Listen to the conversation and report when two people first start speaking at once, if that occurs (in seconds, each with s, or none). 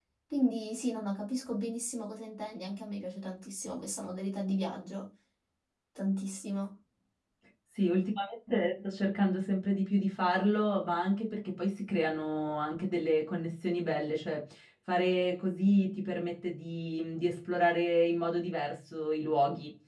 none